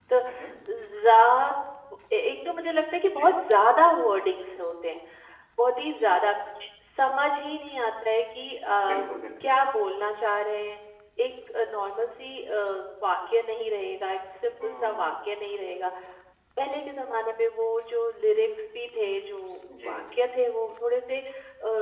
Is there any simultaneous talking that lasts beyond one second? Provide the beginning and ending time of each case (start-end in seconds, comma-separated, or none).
none